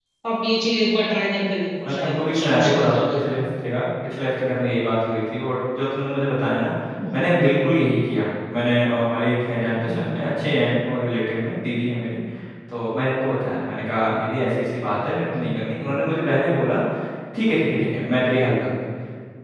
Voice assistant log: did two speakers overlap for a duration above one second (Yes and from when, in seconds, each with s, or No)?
Yes, from 1.9 s